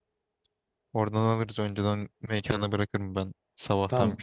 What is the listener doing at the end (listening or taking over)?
taking over